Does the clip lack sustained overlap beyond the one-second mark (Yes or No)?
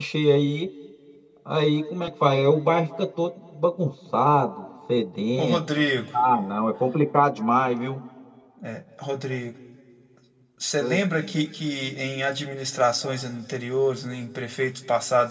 Yes